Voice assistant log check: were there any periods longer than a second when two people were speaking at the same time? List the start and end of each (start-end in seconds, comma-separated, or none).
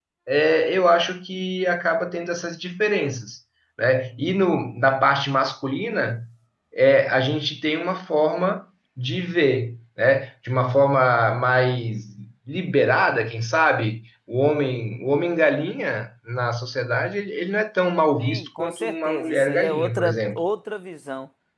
18.2-20.4